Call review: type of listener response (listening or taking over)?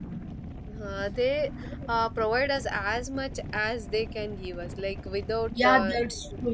taking over